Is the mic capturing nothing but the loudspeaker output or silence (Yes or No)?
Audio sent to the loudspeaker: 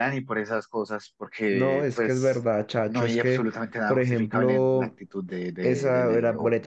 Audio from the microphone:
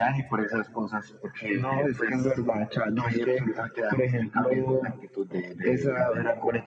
Yes